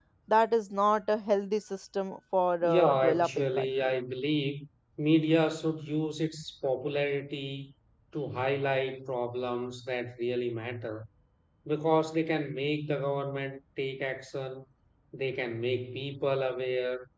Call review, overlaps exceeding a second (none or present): present